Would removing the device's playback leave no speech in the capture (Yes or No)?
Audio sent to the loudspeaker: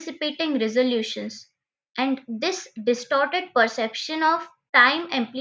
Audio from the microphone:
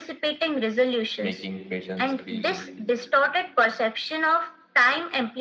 No